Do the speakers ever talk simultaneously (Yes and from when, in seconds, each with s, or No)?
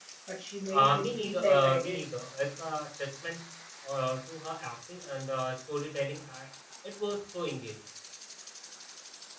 Yes, from 0.7 s